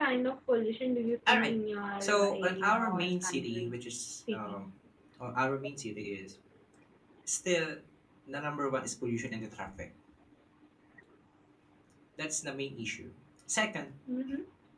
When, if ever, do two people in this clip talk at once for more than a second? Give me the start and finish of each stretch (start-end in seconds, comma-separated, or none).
2.0-3.8